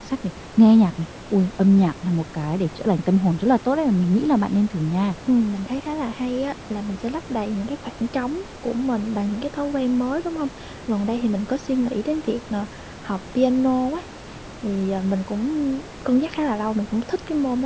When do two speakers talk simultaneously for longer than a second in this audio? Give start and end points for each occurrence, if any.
none

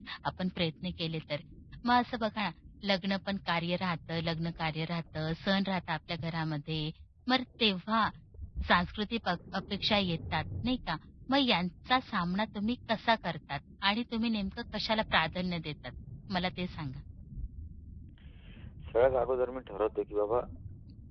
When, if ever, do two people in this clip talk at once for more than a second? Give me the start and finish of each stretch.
none

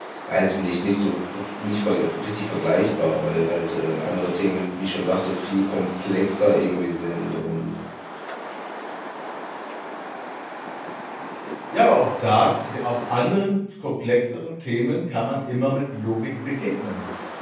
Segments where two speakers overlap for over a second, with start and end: none

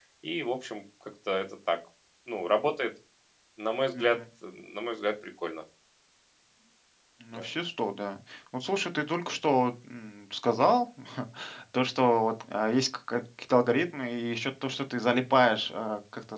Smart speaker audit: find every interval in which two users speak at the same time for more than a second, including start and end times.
none

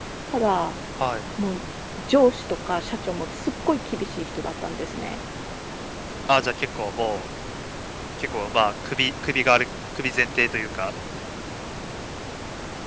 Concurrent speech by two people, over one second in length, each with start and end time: none

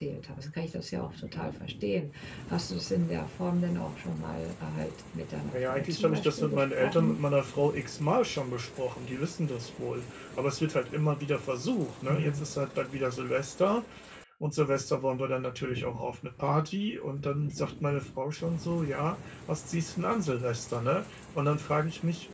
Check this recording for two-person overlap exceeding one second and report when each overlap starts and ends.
5.5-7.2

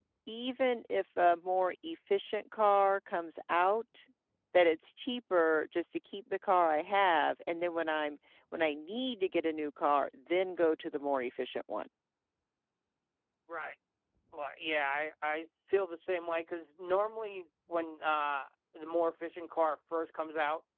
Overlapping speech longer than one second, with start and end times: none

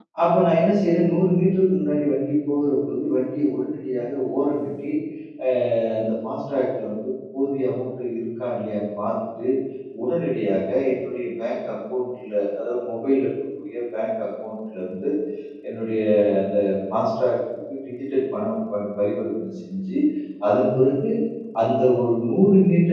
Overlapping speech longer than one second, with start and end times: none

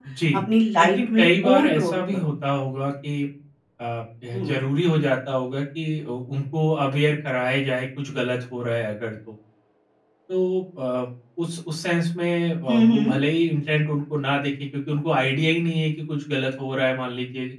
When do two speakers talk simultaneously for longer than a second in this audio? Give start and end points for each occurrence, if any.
0.8-2.2

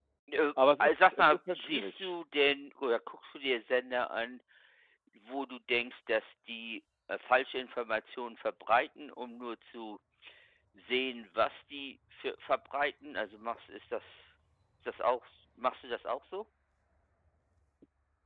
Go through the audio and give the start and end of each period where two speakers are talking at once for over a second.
0.8-2.1

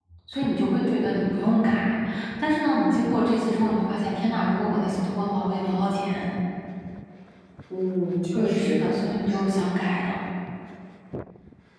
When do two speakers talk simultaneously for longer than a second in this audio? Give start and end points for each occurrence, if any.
8.3-9.7

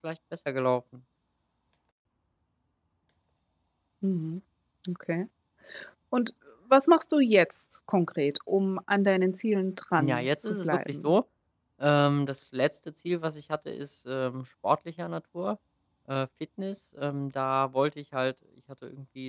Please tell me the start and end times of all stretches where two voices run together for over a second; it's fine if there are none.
10.0-11.2

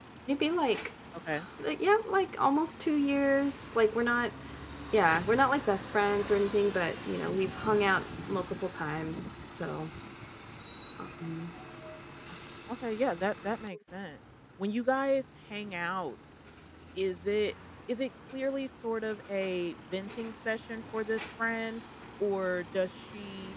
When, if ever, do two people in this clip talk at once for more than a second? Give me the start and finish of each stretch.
none

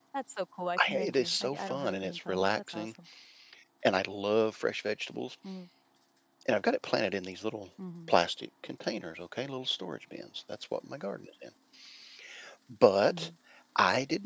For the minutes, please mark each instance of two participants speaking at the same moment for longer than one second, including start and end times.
0.8-2.9

